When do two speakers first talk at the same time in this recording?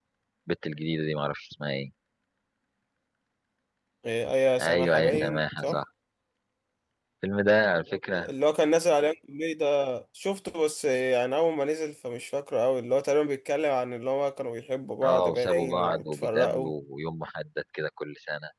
4.6 s

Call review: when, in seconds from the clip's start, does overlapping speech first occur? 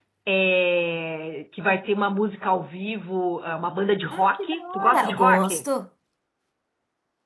4.1 s

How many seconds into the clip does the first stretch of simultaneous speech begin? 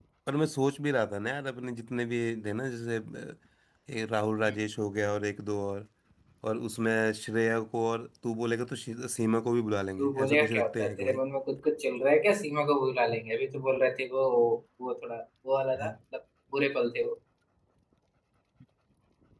10.0 s

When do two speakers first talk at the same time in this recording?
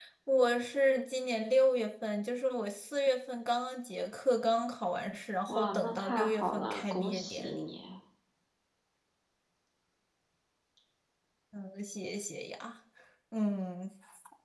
5.5 s

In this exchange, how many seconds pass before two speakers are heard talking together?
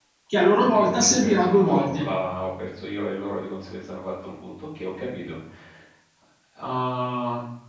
0.7 s

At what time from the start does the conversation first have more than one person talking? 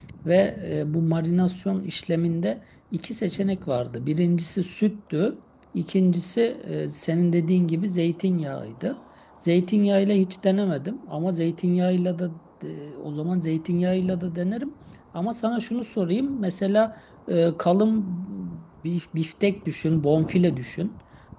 none

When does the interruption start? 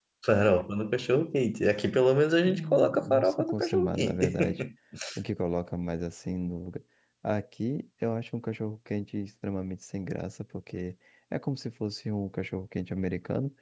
2.4 s

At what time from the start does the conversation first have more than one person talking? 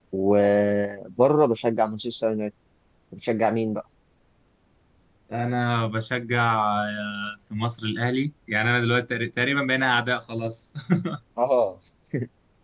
none

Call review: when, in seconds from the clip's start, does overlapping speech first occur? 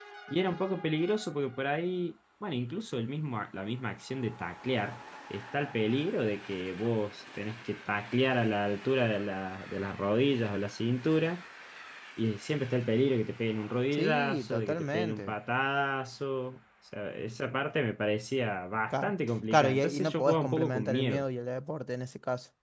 13.9 s

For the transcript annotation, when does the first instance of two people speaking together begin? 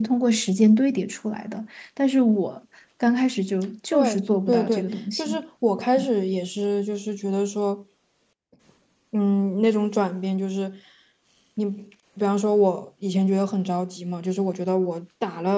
3.9 s

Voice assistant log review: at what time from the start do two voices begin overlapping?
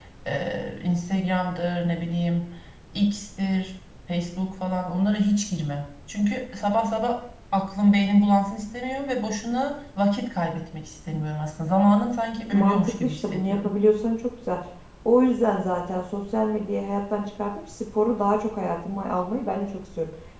12.5 s

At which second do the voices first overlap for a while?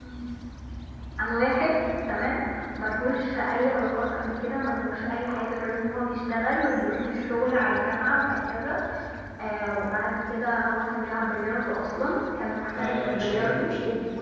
12.7 s

